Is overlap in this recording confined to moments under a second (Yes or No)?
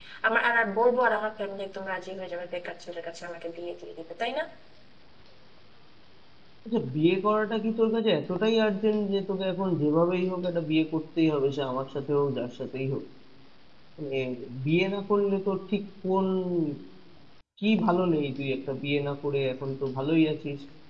Yes